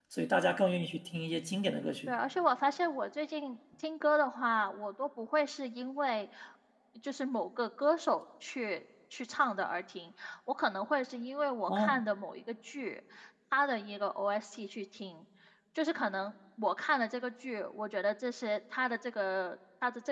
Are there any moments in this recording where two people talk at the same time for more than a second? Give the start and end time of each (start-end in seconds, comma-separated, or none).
none